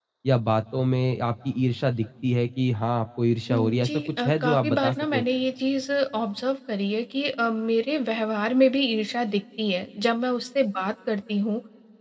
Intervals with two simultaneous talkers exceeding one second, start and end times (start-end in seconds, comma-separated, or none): 3.5-5.2